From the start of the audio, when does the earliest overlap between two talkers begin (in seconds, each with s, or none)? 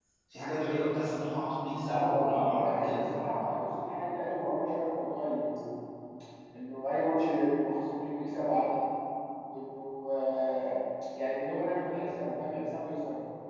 1.9 s